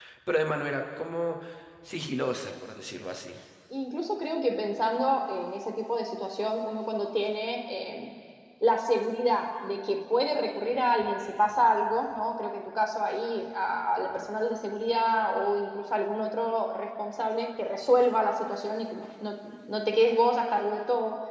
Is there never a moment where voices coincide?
Yes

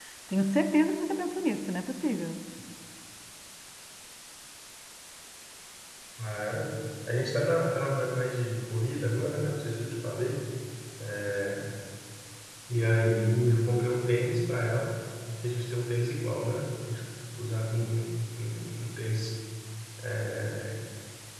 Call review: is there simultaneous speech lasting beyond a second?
No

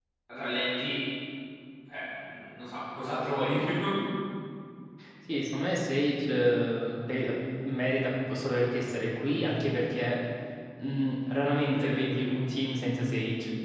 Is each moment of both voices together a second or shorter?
Yes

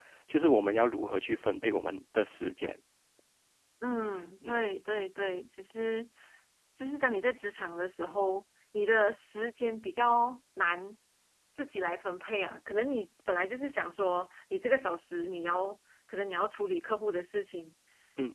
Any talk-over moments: No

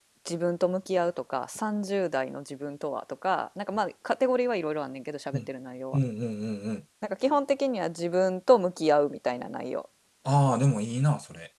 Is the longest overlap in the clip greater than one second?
No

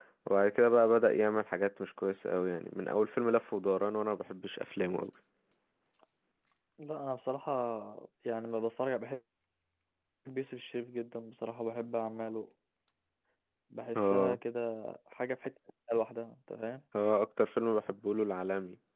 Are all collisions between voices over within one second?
Yes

